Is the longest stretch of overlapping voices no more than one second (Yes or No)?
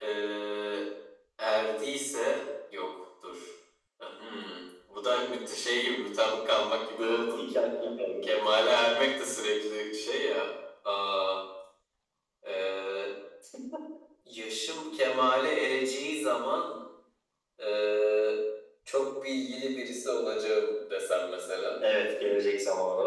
Yes